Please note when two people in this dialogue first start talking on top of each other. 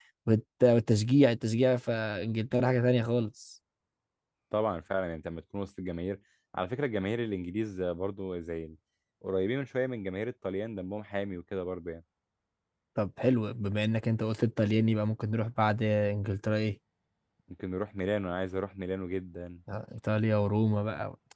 none

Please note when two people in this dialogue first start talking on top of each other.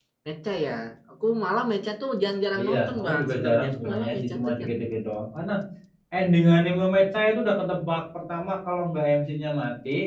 2.5 s

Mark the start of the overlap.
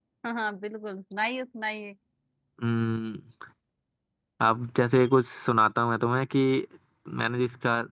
none

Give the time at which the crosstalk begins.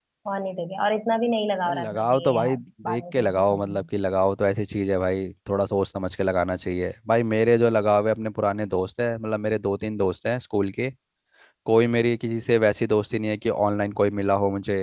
1.6 s

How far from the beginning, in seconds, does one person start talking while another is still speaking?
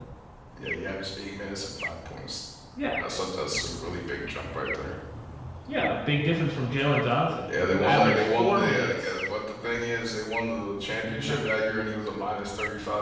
7.5 s

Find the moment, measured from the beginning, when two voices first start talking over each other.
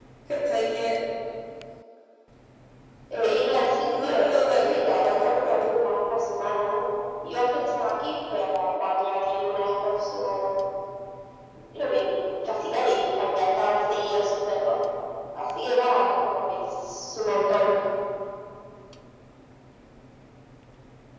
3.8 s

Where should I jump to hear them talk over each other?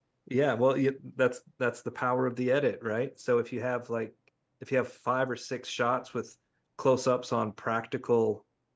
none

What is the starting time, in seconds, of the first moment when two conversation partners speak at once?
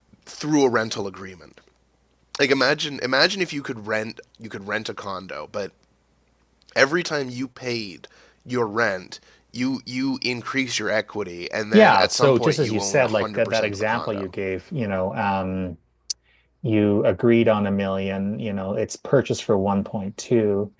11.7 s

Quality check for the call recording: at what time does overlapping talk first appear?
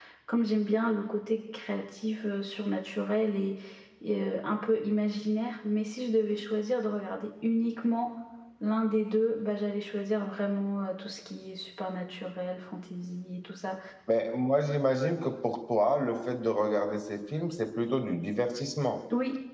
none

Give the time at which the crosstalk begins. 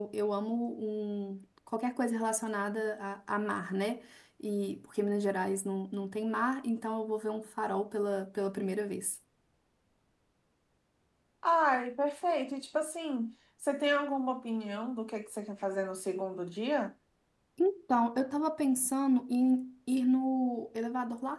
none

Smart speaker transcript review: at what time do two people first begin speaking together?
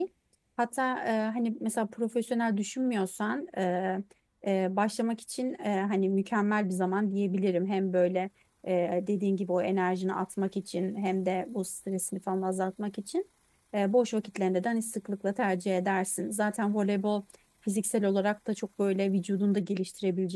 none

